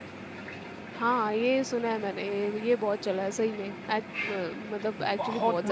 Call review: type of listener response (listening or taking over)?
taking over